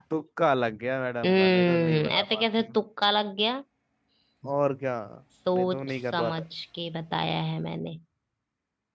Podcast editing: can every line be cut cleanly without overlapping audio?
No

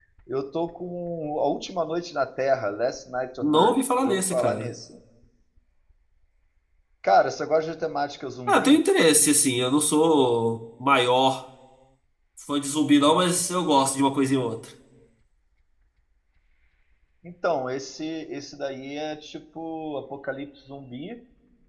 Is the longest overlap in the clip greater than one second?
Yes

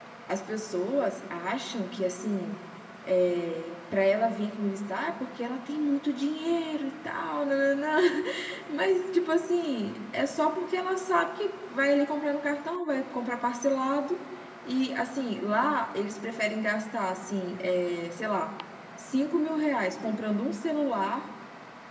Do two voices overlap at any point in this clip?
No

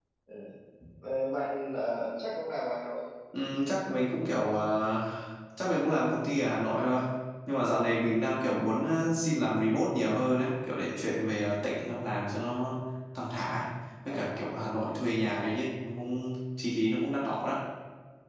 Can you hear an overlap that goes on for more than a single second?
No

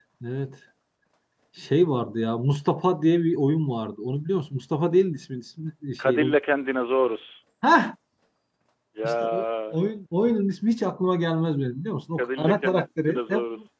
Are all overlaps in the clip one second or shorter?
No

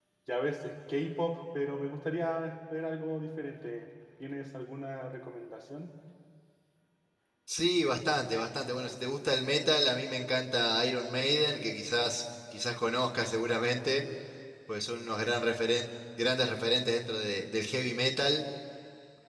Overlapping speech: No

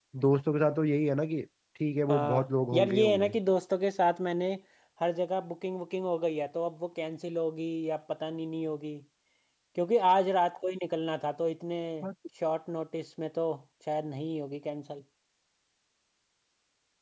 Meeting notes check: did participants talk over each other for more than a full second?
Yes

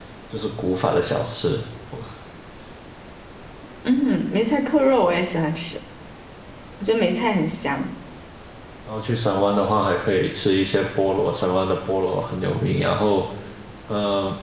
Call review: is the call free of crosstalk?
Yes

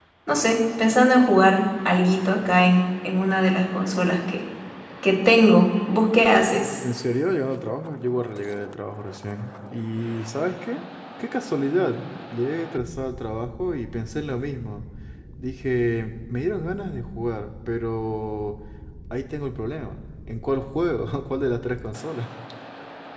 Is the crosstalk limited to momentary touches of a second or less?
Yes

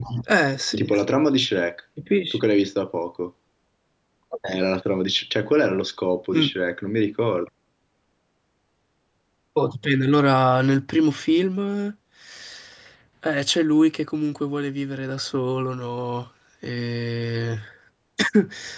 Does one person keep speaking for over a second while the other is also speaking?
No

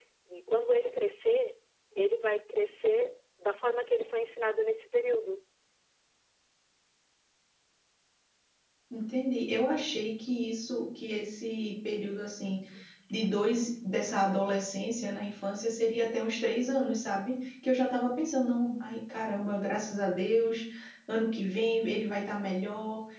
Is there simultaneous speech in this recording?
No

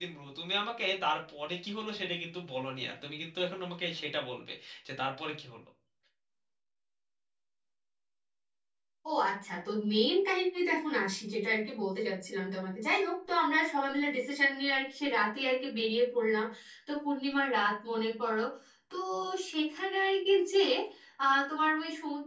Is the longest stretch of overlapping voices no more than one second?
Yes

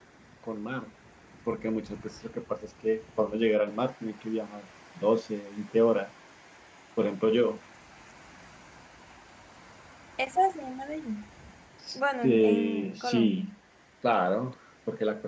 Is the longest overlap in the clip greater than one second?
Yes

